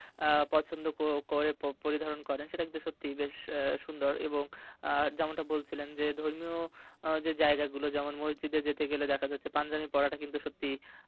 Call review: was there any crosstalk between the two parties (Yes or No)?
No